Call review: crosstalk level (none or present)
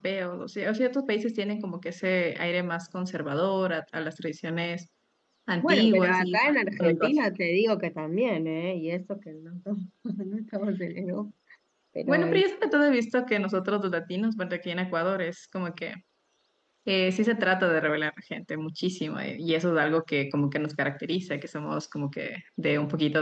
present